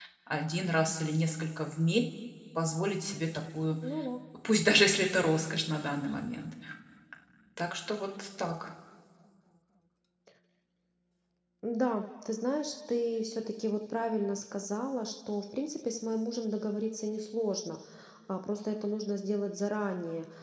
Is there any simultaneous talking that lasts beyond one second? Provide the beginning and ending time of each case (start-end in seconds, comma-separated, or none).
none